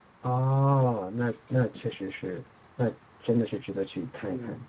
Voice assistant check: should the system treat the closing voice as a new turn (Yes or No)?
Yes